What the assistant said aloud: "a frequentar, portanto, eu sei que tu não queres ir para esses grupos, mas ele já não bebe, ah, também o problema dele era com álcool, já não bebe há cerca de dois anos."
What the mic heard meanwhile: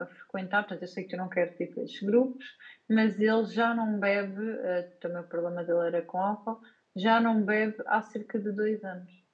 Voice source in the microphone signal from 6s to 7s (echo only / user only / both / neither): echo only